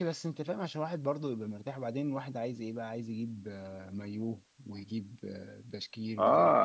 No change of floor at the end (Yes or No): No